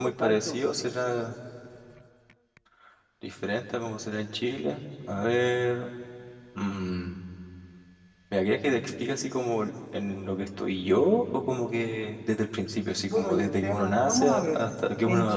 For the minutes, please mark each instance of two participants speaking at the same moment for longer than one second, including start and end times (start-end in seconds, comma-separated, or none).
13.1-14.6